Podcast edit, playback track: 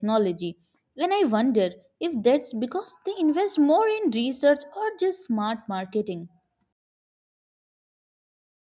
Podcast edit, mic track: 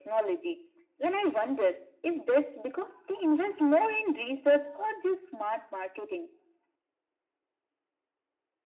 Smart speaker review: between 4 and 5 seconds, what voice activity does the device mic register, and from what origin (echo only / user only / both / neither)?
echo only